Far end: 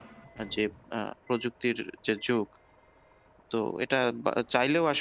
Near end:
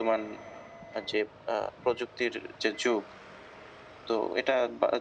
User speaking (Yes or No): No